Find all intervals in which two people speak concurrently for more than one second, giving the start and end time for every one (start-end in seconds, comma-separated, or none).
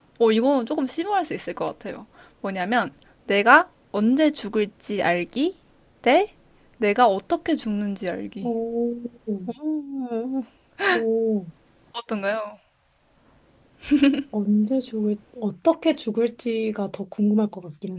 none